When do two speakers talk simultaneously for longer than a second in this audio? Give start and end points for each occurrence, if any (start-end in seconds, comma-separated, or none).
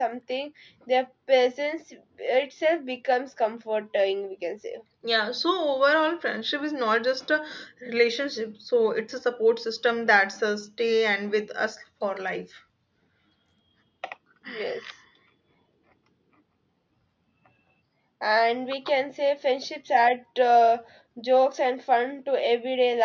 none